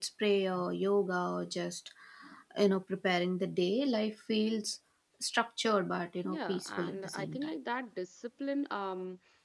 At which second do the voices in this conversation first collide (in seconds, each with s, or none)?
6.2 s